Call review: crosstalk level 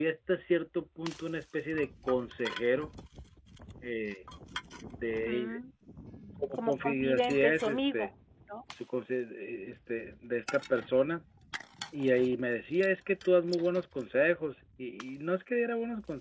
present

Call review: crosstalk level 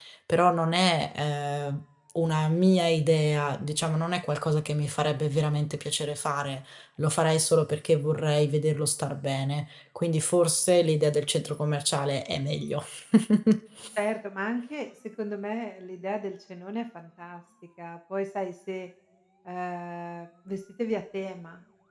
none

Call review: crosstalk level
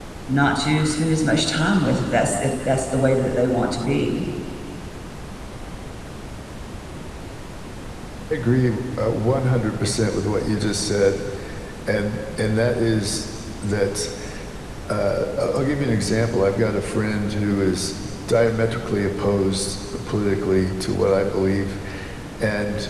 none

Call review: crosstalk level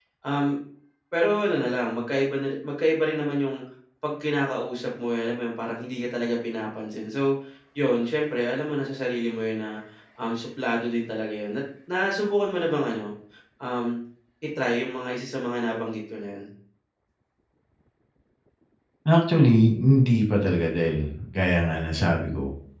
none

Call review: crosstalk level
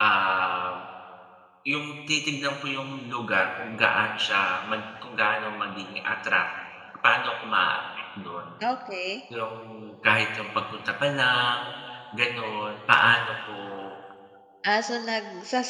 none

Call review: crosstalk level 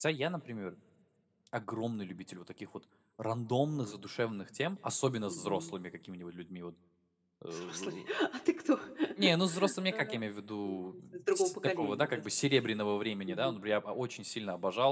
present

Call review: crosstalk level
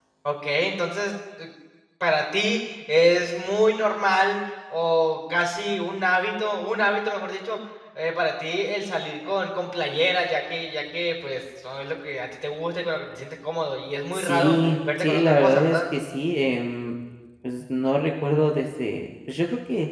present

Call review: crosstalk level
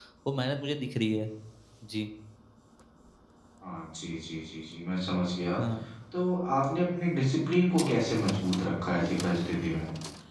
none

